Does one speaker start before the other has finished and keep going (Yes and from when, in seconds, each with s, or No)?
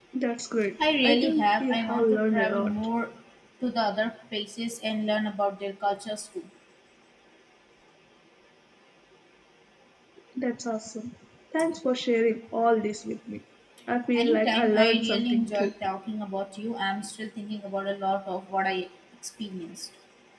Yes, from 1.0 s